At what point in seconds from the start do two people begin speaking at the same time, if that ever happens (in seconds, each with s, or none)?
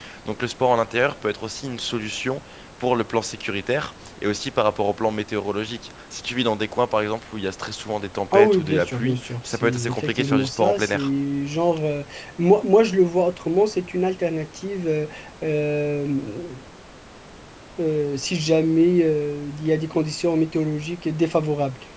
8.3 s